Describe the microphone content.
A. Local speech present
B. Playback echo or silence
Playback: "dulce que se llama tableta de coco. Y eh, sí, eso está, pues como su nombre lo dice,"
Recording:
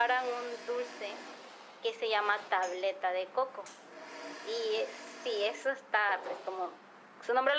B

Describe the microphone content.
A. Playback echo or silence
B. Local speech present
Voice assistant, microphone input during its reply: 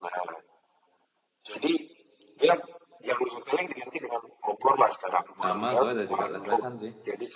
B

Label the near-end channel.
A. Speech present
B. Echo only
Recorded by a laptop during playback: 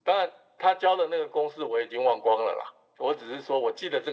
B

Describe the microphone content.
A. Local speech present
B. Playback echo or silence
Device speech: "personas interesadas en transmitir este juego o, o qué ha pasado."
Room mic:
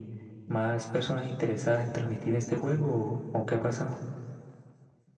B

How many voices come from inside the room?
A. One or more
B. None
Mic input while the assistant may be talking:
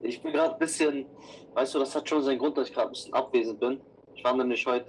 B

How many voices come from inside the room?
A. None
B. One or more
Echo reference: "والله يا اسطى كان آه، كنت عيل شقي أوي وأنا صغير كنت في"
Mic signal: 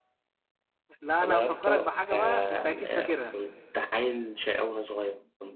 B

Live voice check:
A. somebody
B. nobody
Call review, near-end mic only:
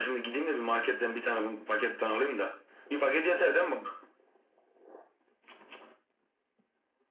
B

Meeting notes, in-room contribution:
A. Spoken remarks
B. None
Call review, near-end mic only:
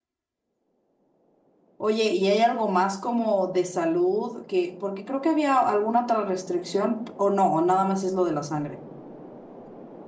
A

